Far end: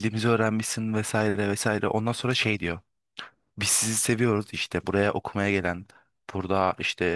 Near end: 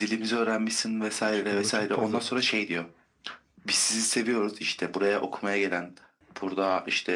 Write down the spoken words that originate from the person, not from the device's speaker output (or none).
Çünkü burada çok fazla